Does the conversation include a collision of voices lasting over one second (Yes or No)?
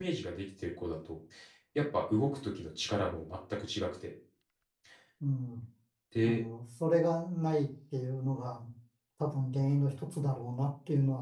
No